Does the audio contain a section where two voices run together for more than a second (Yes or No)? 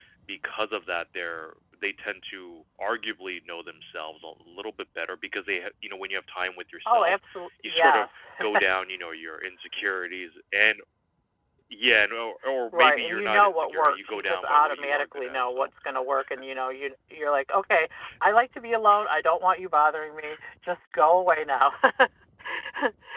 Yes